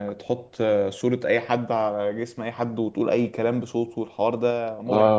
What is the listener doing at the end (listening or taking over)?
taking over